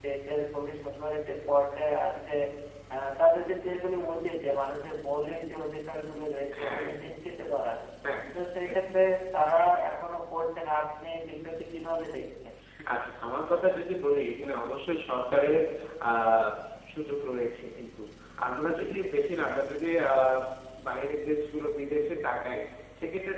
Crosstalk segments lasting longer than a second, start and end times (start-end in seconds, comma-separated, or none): none